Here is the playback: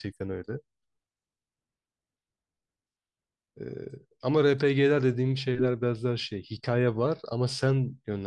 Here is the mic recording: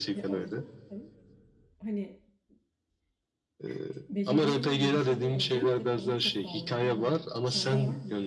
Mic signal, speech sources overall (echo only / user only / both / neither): both